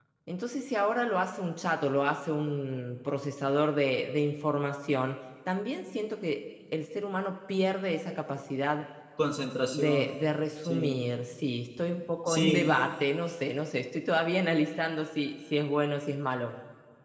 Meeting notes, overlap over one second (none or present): none